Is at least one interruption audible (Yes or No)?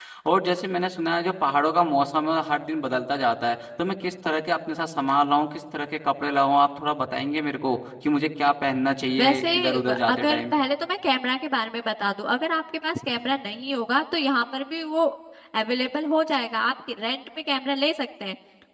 Yes